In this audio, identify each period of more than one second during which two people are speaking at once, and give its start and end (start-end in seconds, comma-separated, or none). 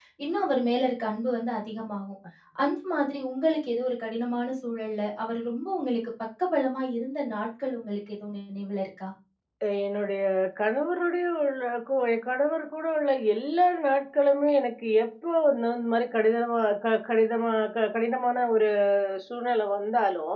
none